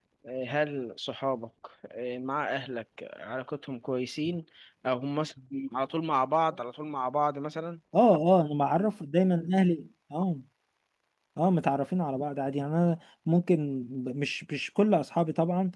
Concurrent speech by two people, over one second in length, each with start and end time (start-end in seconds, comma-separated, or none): none